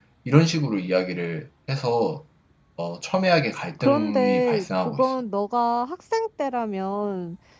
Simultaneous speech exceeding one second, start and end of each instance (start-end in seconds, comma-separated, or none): 3.8-5.1